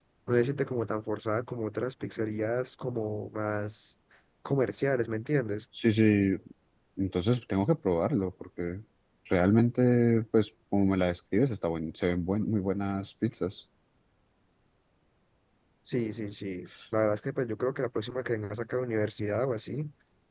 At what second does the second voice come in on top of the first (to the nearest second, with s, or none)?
none